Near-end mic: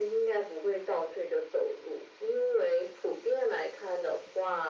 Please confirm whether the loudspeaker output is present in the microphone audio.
Yes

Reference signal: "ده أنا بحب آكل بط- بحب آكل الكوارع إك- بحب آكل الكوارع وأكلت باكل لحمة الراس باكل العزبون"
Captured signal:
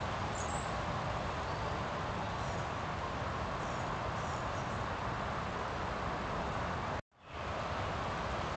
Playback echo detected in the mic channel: No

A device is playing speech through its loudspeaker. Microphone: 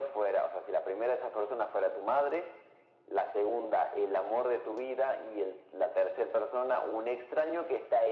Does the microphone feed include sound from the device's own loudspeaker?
Yes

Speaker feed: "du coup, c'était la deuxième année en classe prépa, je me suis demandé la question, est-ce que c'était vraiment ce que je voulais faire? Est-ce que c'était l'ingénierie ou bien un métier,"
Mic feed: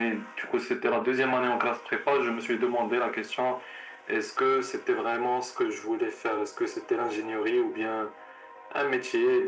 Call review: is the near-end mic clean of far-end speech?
No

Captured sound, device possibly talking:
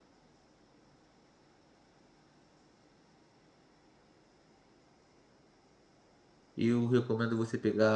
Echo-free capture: Yes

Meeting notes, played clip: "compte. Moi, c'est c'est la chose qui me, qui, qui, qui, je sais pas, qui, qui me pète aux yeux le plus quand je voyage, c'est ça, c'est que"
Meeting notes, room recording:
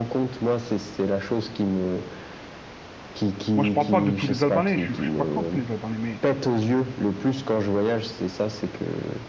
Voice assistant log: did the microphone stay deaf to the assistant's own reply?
No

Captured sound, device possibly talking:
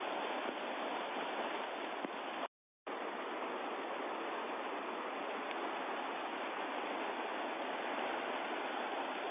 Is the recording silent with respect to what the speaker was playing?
Yes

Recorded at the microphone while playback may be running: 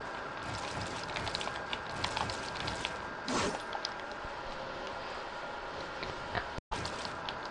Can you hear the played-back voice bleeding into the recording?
No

